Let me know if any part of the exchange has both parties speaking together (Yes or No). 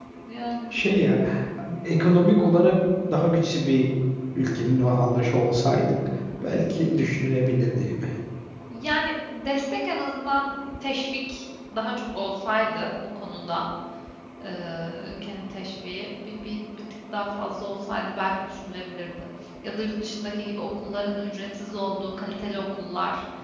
No